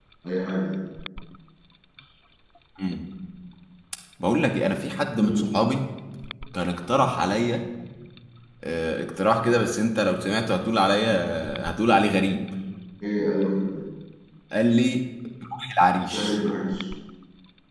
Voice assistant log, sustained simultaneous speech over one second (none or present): none